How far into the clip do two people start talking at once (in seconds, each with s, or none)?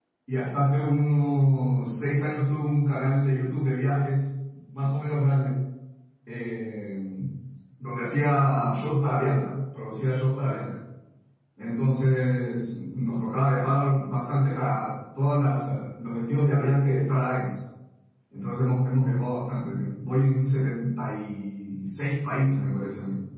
none